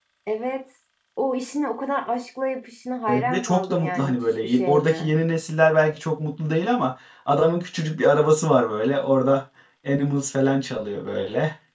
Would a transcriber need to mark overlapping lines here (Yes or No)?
Yes